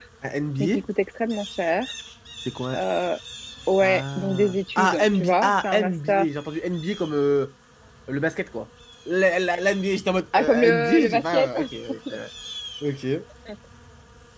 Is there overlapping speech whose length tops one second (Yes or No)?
Yes